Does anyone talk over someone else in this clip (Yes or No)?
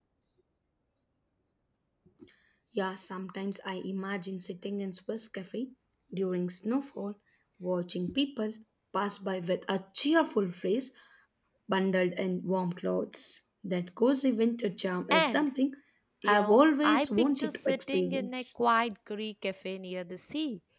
Yes